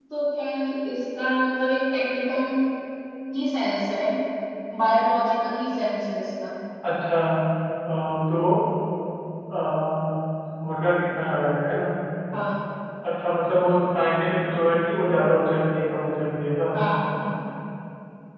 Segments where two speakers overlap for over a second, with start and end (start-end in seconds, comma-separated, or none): none